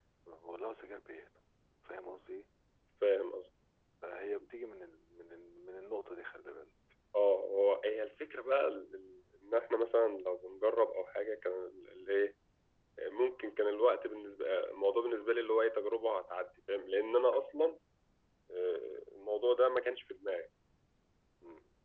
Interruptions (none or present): none